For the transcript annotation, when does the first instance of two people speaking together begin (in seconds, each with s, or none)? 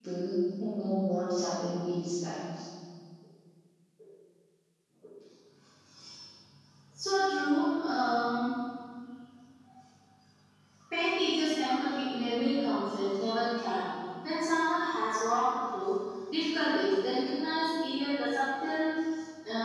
none